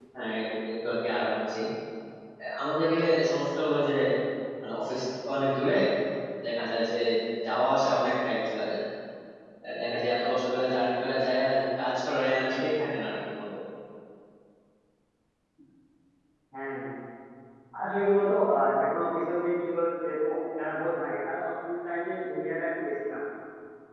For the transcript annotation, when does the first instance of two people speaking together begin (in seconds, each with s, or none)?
none